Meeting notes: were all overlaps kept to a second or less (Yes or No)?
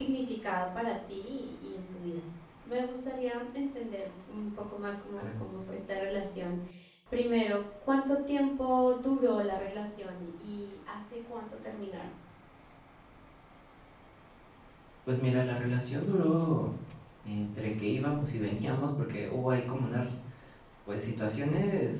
Yes